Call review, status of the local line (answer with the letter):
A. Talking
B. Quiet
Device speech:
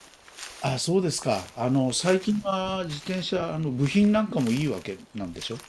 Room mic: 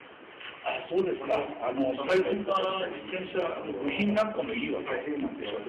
A